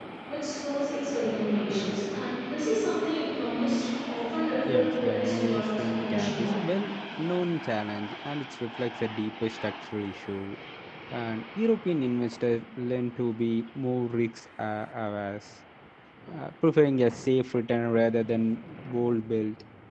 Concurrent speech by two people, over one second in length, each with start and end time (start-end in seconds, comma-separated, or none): 4.7-6.6